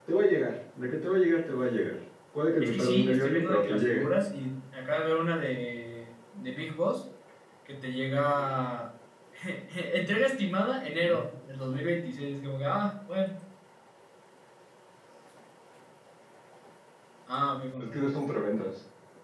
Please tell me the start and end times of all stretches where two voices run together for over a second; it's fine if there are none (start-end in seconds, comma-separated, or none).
2.6-4.0